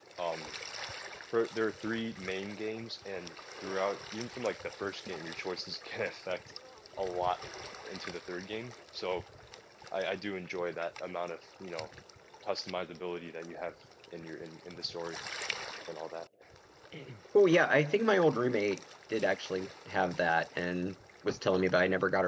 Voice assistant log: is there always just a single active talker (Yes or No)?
Yes